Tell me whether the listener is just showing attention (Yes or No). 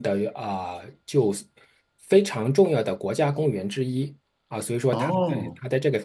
Yes